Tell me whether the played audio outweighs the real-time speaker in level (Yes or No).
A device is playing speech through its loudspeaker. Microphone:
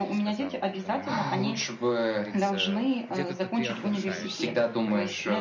Yes